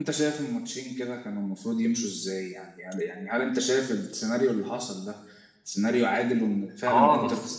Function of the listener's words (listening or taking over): taking over